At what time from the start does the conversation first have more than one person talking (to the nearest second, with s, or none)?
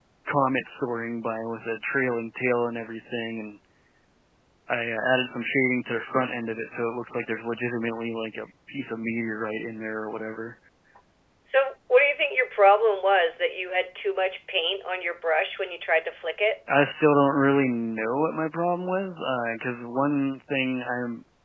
none